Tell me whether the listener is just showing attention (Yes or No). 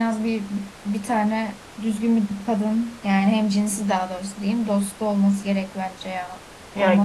No